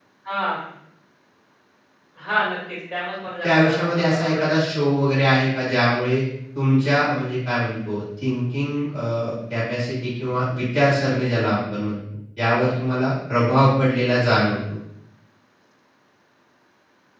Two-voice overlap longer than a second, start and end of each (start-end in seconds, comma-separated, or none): 3.4-4.6